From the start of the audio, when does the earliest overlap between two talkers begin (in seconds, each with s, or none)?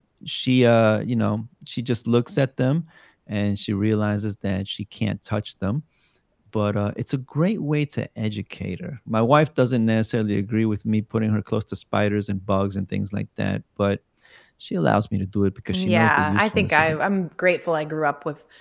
15.7 s